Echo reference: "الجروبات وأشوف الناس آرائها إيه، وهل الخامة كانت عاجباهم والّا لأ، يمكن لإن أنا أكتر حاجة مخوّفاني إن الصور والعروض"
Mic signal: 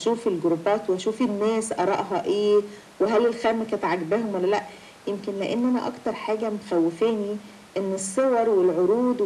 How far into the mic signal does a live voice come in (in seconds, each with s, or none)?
none